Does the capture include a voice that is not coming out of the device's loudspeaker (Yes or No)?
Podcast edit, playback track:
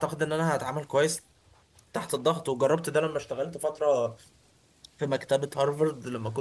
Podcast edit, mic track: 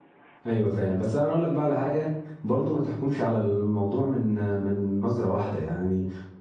Yes